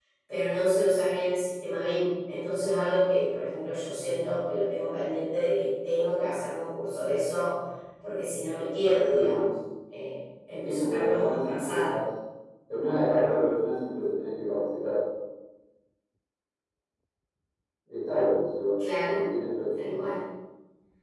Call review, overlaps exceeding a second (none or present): present